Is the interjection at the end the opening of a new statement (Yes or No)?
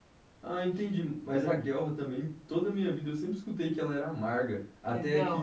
Yes